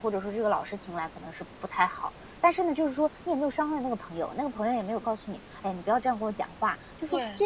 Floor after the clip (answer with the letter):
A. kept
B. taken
A